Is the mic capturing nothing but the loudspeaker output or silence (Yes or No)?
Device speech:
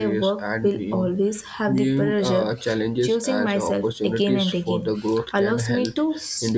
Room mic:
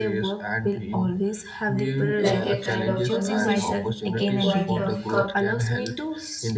No